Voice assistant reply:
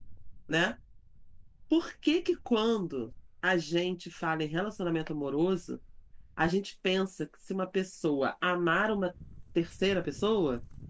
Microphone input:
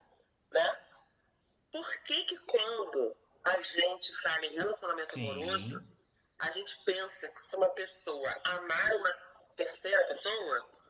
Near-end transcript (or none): sim,